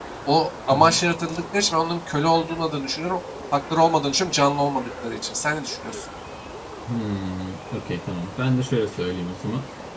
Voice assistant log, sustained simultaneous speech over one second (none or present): none